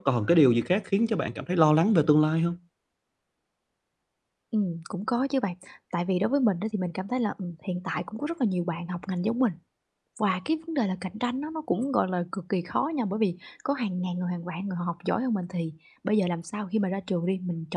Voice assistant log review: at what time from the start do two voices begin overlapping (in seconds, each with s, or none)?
none